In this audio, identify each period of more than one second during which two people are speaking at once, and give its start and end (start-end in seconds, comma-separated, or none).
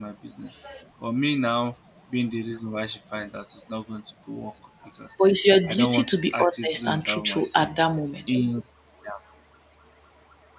5.7-7.7